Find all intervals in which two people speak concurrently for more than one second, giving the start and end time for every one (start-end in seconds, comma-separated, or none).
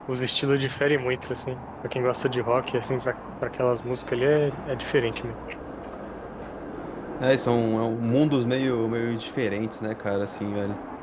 none